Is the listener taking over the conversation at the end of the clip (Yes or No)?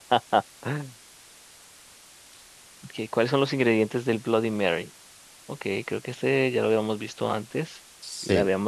Yes